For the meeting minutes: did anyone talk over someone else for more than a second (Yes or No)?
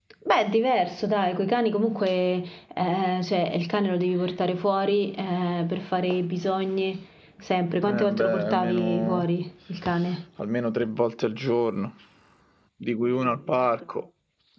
Yes